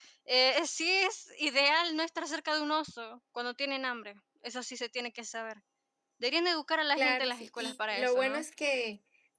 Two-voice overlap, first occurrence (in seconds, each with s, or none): 7.0 s